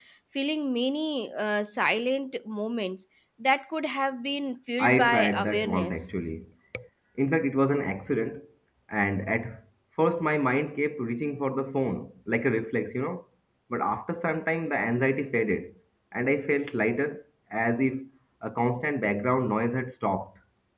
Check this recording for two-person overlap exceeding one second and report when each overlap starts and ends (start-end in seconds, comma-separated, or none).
4.8-6.1